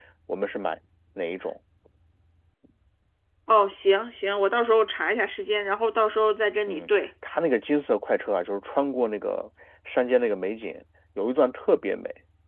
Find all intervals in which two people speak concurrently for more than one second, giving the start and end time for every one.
none

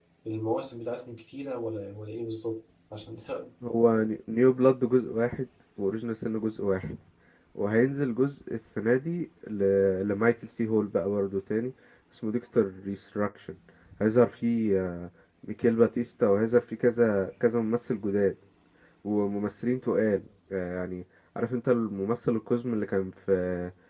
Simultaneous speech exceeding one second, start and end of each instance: none

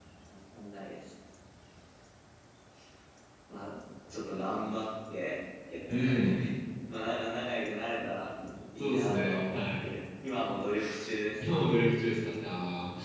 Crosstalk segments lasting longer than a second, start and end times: 8.8-10.0

